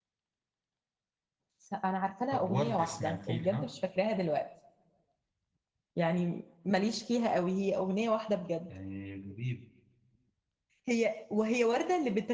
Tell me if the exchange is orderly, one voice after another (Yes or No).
No